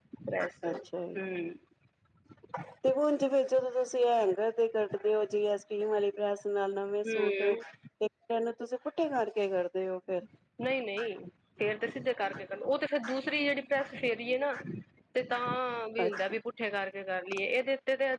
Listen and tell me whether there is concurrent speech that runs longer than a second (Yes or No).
No